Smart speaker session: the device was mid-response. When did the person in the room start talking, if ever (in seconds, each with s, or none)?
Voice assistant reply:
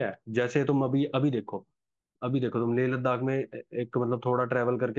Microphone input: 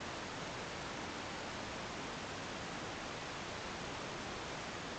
none